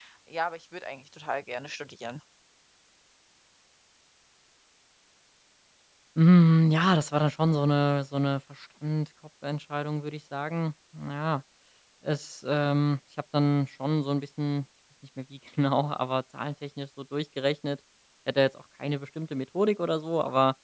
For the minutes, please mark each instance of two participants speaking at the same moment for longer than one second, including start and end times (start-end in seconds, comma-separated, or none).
none